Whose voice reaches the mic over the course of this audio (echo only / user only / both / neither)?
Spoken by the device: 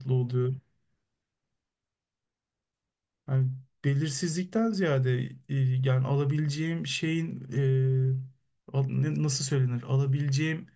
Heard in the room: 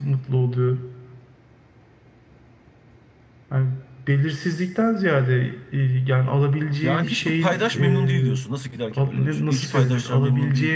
both